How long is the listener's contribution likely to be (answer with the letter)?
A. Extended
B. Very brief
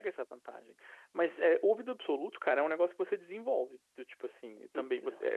B